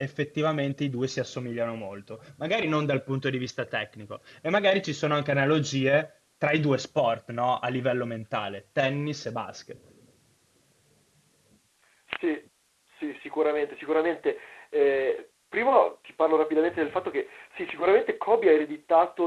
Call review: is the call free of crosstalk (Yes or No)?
Yes